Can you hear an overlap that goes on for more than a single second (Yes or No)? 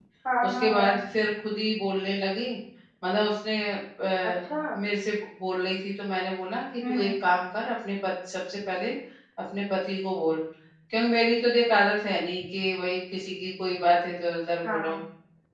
No